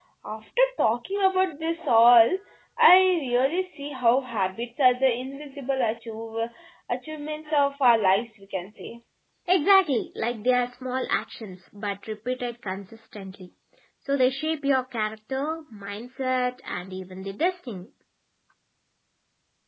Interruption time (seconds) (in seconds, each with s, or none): none